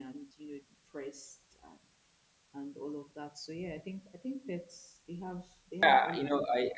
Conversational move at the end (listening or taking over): taking over